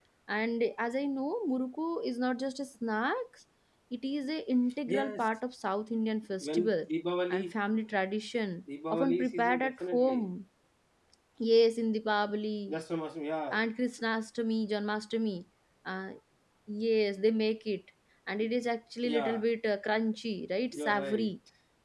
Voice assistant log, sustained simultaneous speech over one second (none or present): present